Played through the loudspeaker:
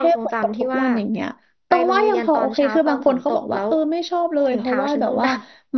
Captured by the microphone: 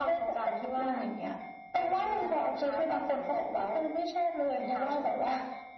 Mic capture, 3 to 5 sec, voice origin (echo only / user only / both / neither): echo only